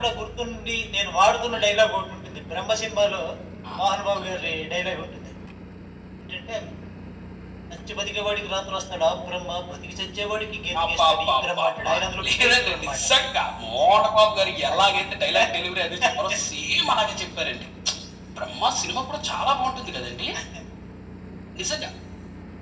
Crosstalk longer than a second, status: present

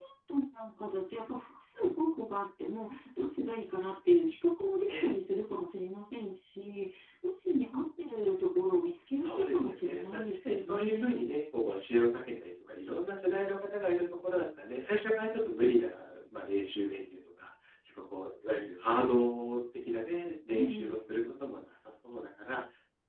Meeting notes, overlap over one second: present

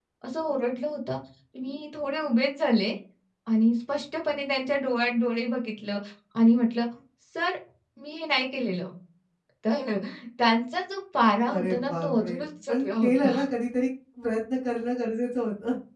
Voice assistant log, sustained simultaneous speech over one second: present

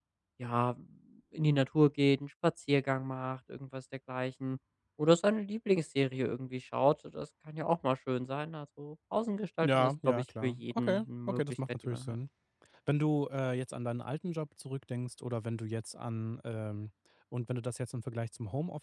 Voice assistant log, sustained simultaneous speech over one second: present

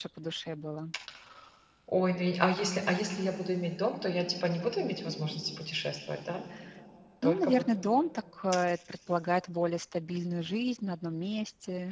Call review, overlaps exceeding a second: none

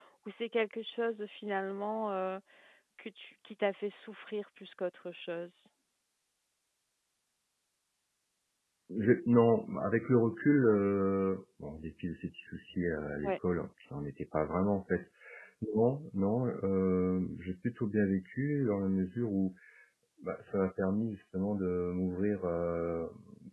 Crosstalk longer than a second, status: none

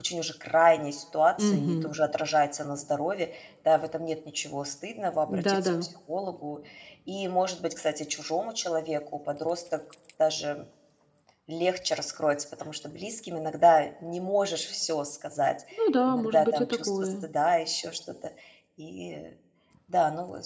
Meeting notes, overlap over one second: present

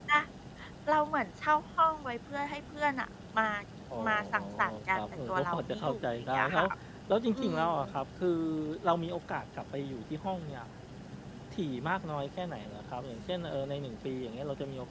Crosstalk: present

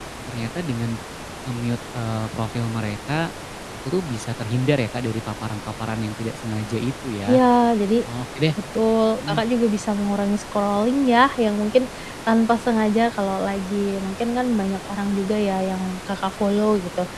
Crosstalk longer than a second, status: none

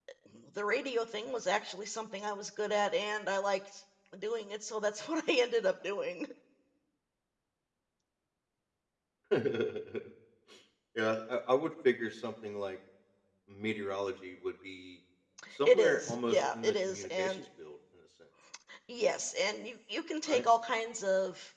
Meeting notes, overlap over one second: present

